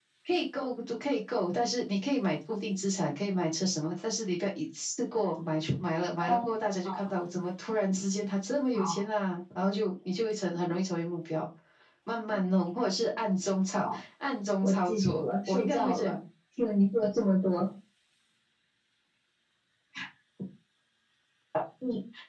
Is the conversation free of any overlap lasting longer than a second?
No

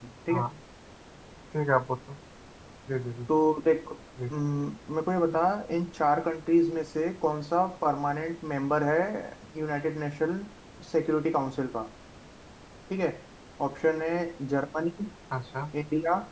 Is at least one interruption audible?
No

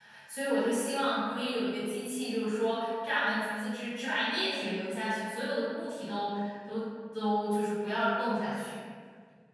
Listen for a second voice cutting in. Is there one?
No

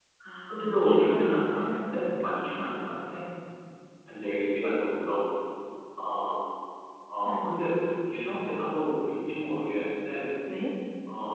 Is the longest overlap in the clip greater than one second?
Yes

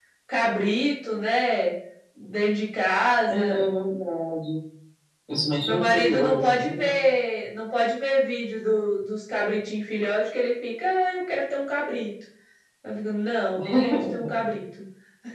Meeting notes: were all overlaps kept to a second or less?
No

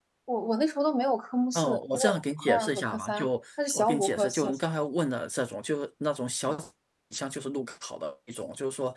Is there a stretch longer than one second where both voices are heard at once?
Yes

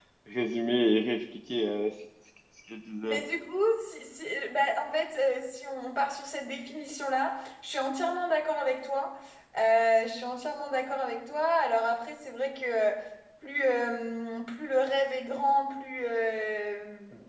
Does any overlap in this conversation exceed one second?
No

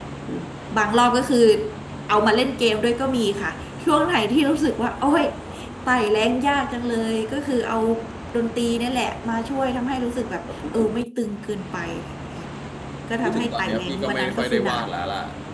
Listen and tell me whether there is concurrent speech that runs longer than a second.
Yes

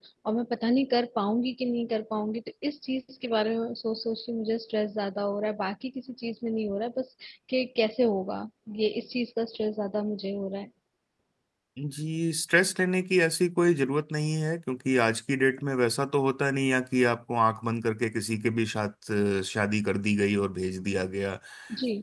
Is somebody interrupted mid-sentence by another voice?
No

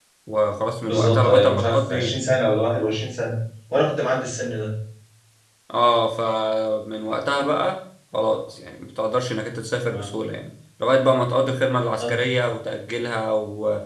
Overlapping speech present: Yes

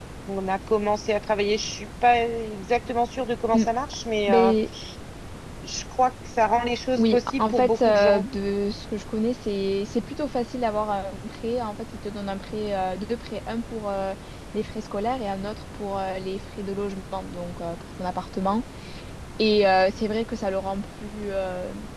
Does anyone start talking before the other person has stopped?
Yes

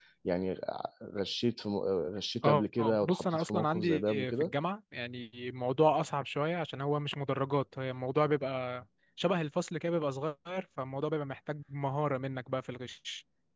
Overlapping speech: Yes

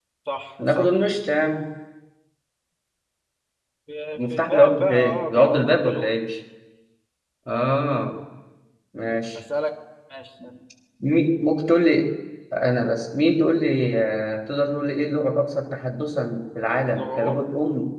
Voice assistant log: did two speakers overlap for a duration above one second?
Yes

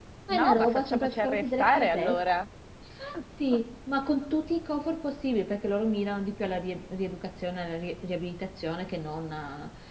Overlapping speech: Yes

